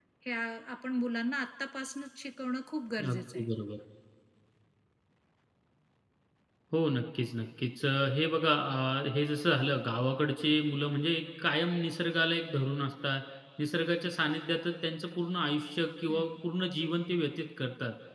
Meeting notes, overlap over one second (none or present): none